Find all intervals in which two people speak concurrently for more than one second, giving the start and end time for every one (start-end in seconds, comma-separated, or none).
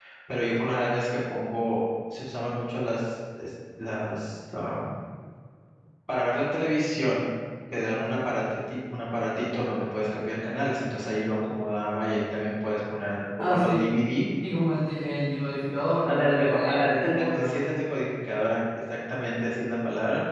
16.1-17.6